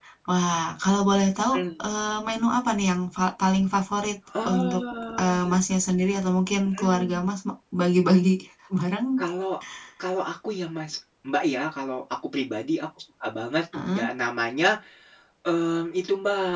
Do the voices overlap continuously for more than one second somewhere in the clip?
No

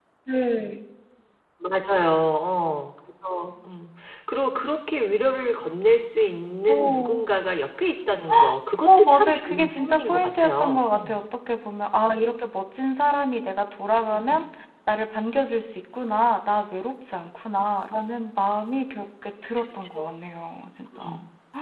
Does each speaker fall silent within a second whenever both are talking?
No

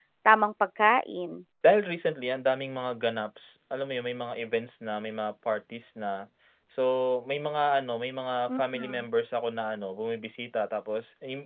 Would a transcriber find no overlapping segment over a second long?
Yes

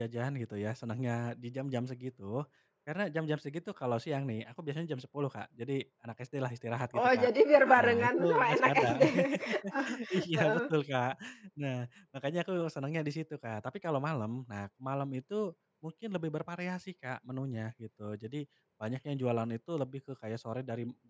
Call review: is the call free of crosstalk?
No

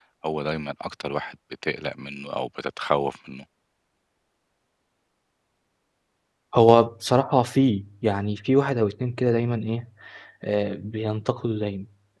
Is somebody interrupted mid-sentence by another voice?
No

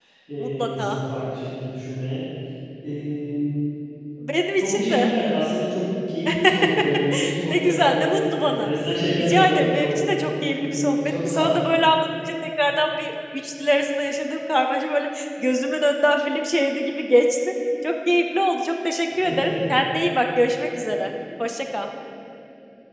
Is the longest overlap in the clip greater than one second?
Yes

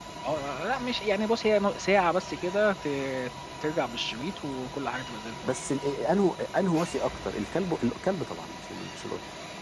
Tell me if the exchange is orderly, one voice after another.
Yes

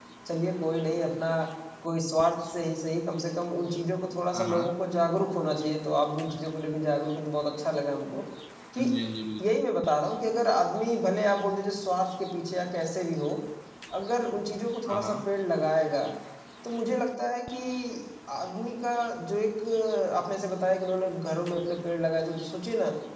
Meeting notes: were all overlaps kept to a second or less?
Yes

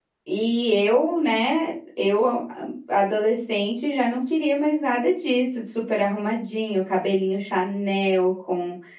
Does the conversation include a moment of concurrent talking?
No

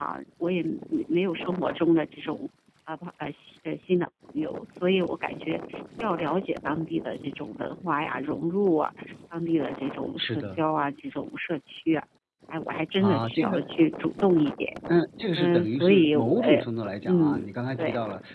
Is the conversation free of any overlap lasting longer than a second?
No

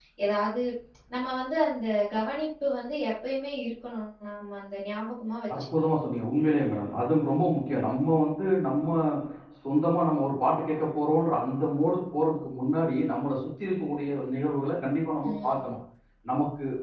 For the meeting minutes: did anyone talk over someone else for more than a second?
No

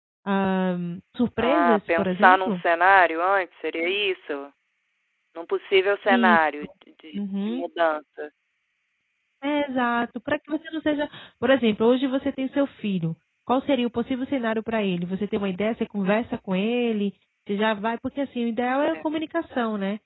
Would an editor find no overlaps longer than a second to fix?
No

